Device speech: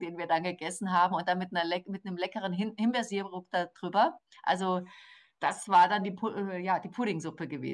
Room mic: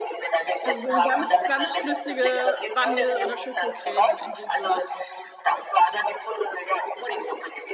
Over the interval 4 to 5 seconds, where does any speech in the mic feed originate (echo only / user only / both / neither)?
both